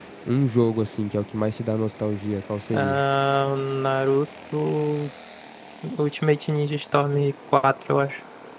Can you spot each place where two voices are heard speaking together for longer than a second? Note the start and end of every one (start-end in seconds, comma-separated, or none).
none